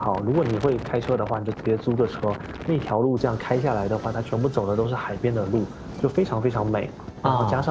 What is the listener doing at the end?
listening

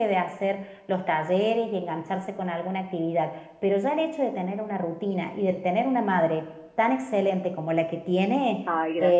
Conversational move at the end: listening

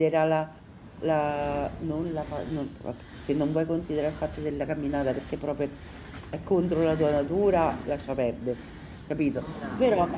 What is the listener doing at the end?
listening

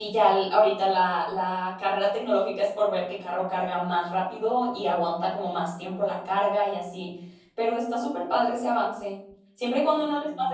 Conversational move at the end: listening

